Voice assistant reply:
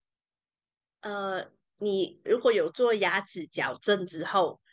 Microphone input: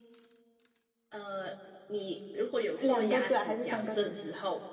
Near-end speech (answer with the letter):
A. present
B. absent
A